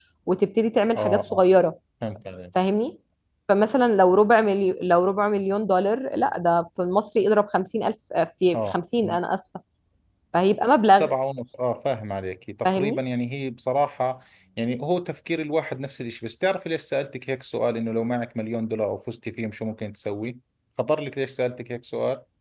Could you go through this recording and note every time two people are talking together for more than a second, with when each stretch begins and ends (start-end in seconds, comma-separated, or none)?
none